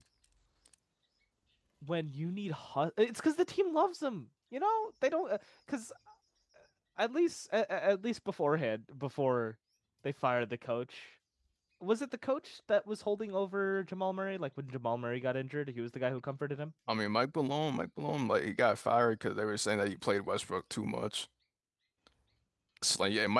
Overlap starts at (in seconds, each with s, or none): none